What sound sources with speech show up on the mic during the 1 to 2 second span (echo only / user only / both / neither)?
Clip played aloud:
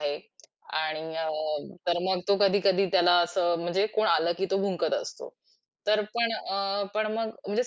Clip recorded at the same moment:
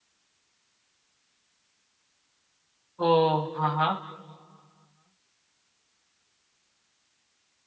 neither